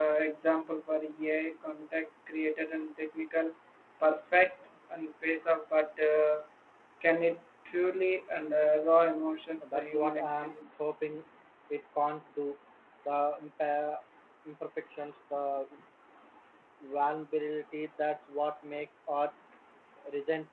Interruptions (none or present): present